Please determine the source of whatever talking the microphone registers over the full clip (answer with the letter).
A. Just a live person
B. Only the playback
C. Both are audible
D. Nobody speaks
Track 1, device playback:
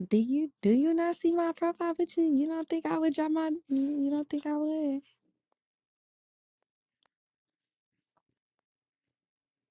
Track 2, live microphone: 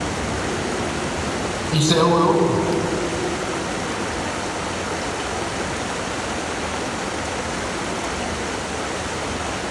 A